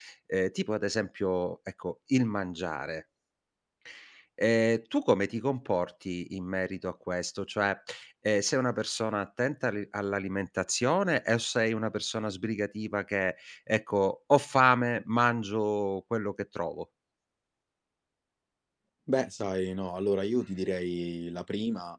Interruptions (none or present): none